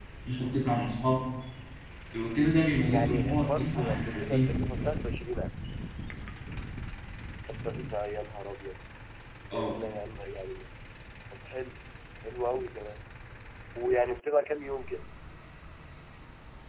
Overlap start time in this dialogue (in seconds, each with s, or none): 2.9 s